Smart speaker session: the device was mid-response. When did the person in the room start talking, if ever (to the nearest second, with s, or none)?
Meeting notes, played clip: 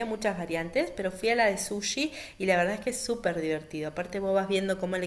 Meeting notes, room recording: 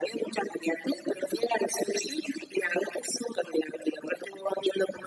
none